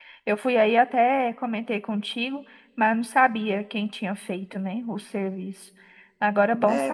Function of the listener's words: taking over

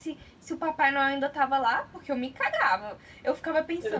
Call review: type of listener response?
listening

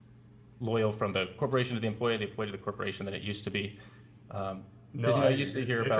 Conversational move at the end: taking over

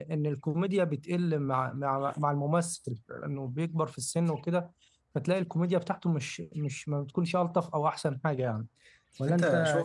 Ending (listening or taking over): taking over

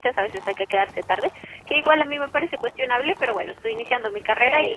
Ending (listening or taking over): listening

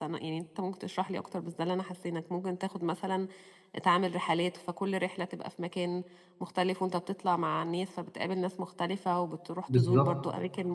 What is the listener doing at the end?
listening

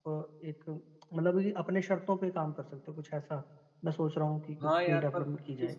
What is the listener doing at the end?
taking over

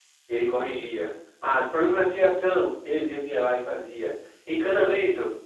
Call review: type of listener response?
listening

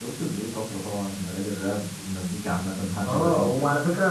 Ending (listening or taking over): taking over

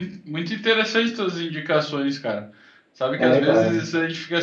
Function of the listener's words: listening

